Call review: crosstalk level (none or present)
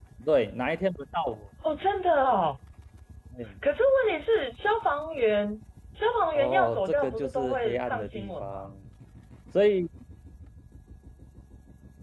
present